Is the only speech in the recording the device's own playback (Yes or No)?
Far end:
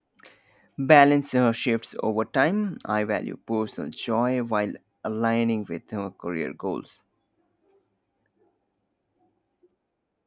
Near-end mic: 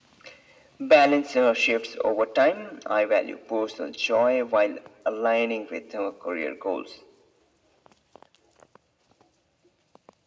Yes